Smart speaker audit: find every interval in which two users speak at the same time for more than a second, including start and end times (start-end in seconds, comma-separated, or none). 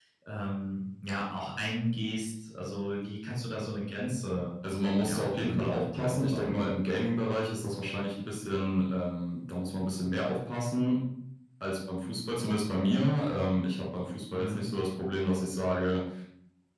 5.0-6.6